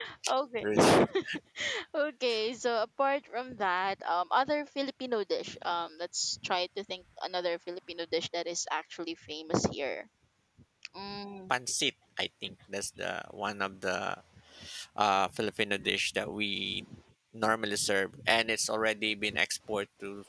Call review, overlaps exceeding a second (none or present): none